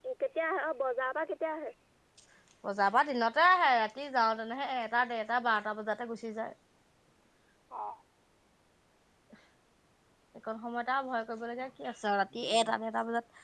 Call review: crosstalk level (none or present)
none